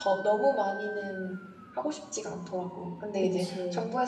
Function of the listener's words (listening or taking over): listening